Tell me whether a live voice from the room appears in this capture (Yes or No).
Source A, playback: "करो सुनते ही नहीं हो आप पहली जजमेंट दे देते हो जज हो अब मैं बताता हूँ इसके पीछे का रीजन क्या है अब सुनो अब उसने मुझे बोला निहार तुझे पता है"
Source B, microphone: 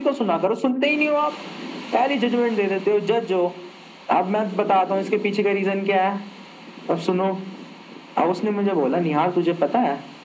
No